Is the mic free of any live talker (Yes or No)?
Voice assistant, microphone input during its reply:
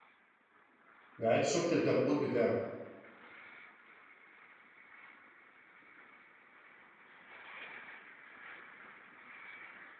No